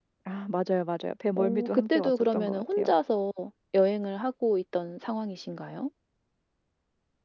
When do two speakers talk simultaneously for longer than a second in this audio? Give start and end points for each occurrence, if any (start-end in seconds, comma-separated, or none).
1.4-2.9